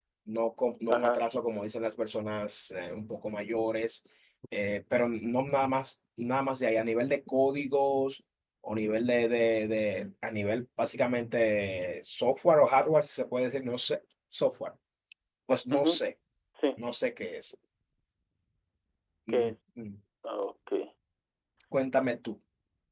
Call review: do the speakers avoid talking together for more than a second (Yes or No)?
Yes